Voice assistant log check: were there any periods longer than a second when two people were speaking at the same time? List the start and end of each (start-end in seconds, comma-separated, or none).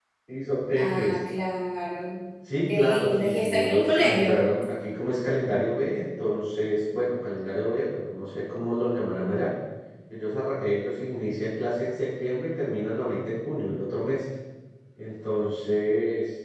2.7-4.4